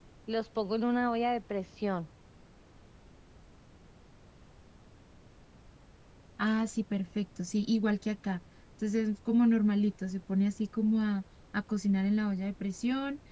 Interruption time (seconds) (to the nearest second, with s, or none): none